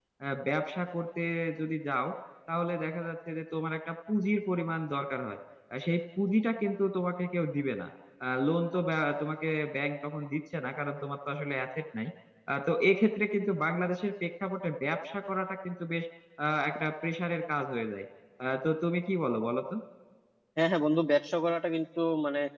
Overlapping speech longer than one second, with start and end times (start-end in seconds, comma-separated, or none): none